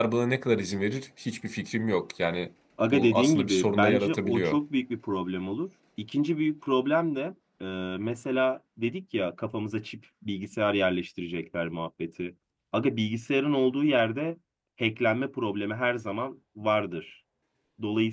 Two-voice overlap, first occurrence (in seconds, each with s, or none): 2.8 s